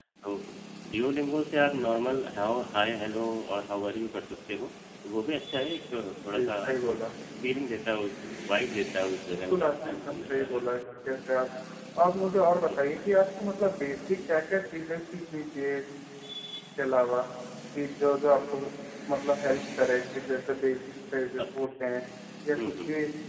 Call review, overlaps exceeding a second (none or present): present